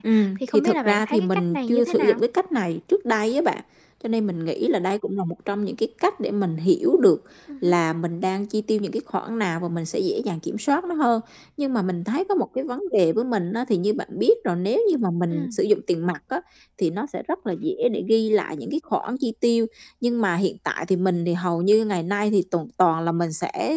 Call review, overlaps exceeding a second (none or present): present